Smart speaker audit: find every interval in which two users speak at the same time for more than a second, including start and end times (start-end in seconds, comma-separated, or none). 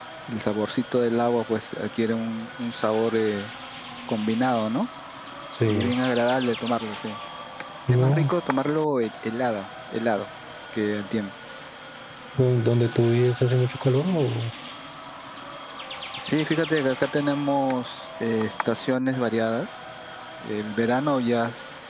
none